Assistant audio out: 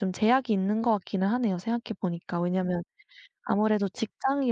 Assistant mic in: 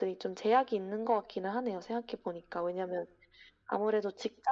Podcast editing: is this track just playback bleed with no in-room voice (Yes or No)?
Yes